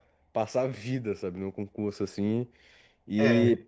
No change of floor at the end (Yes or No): Yes